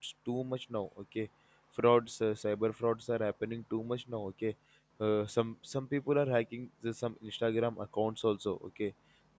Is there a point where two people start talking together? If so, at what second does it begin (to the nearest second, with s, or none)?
none